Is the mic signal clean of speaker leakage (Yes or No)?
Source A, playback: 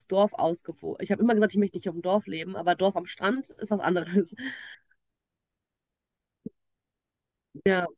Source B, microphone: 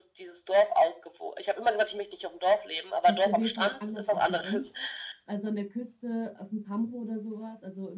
No